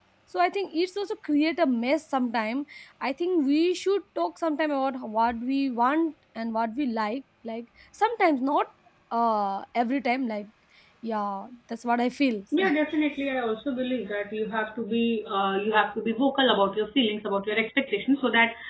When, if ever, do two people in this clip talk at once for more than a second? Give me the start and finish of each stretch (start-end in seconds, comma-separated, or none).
none